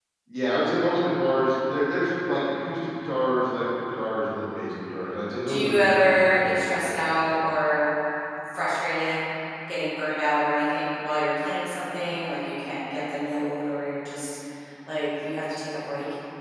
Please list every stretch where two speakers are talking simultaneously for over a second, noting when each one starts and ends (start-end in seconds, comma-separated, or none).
5.5-7.3